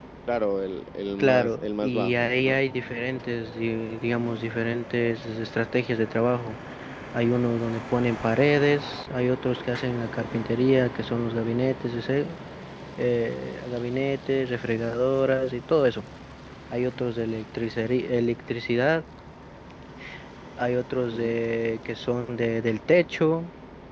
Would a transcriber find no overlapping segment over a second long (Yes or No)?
No